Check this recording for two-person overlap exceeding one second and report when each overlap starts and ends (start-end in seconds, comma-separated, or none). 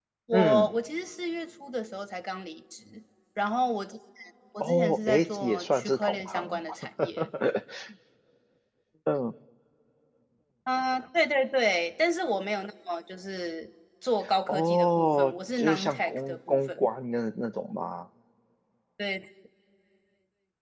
4.6-6.6, 14.5-16.9